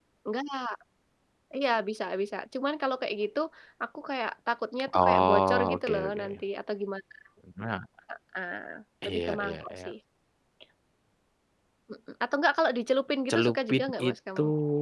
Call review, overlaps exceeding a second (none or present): present